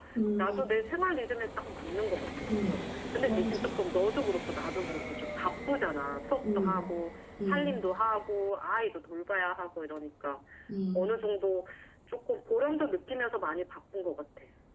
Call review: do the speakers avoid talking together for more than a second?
Yes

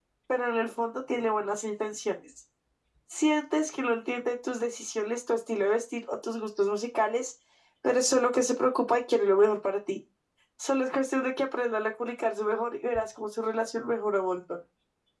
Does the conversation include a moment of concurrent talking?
No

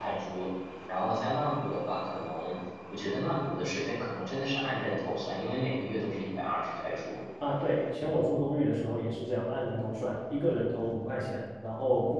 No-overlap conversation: Yes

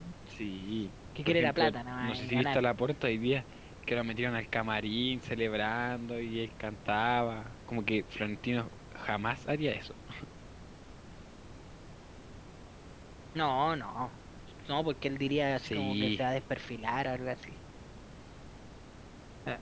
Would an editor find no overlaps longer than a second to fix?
No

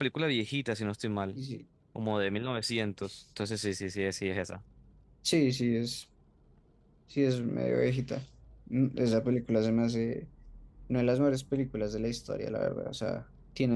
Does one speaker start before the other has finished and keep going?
No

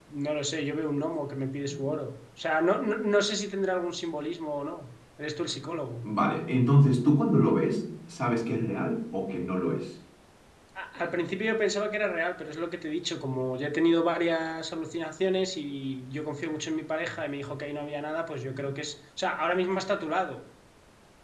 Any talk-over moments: No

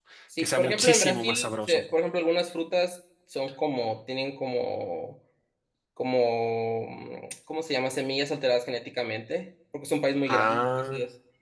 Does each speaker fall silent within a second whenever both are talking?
No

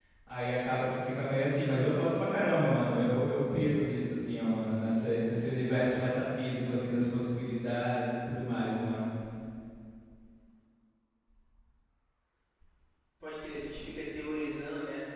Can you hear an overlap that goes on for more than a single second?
No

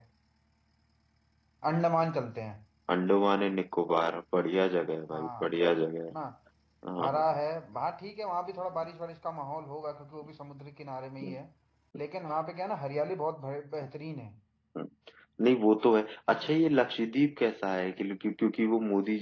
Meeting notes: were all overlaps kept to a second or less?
Yes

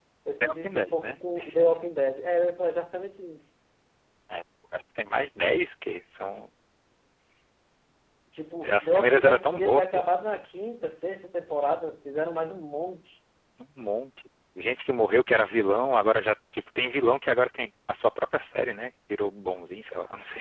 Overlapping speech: Yes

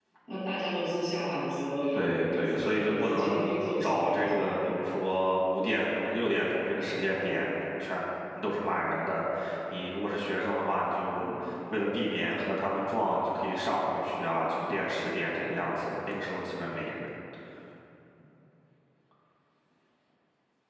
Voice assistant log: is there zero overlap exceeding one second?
No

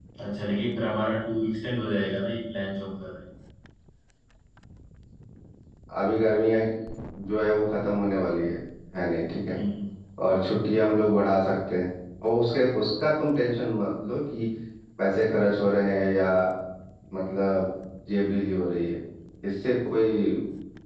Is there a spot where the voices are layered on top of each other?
No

